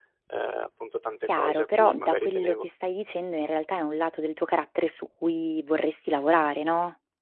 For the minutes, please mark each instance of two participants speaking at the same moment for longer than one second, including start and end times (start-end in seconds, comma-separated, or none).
1.2-2.7